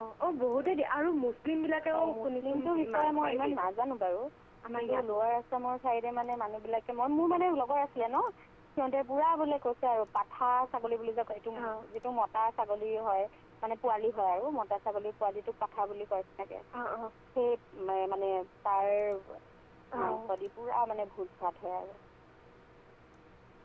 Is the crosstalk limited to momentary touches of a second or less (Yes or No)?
No